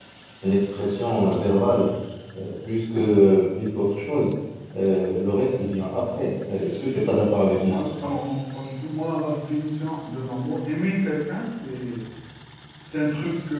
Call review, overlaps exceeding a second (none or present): none